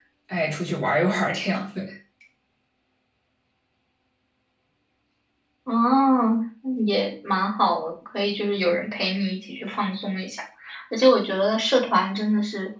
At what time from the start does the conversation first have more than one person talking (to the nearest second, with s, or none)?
none